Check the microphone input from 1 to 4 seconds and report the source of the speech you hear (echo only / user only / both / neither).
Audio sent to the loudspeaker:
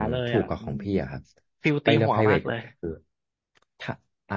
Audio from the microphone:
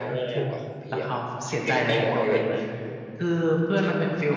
both